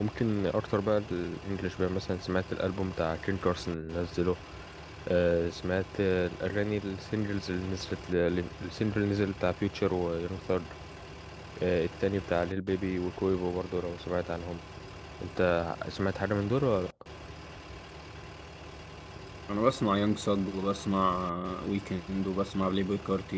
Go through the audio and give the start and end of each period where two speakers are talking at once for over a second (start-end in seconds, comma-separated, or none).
none